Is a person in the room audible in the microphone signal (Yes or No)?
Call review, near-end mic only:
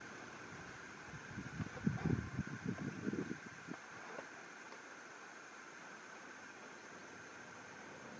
No